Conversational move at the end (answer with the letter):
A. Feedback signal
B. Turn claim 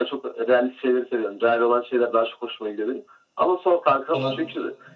A